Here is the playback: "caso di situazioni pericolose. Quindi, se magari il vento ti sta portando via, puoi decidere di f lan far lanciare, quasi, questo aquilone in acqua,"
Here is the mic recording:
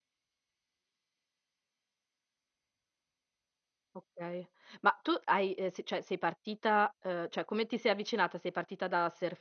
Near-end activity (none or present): present